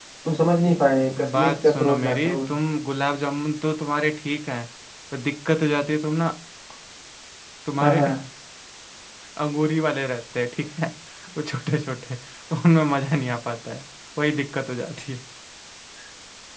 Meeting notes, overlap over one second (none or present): present